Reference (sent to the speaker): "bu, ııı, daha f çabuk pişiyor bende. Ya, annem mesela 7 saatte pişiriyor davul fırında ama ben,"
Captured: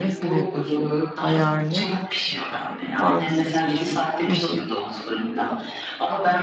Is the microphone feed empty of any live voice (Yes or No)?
No